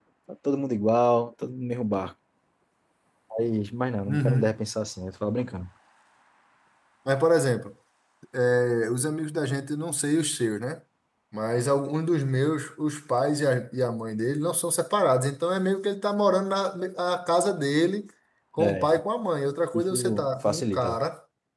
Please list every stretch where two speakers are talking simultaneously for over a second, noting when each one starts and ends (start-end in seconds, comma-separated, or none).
19.7-21.0